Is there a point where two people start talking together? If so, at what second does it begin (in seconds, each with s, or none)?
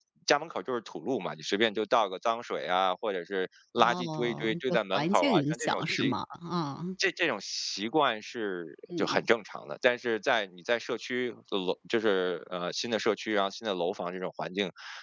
3.8 s